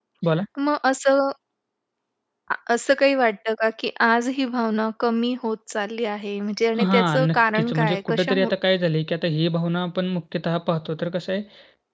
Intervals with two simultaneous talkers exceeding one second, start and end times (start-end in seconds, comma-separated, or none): 6.8-8.5